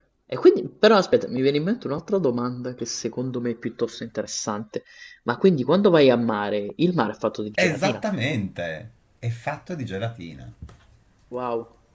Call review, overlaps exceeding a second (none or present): none